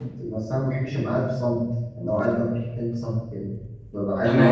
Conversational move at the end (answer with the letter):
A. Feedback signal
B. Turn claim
A